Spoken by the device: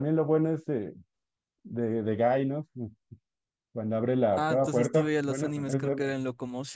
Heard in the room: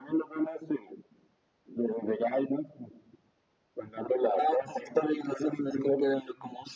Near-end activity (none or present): none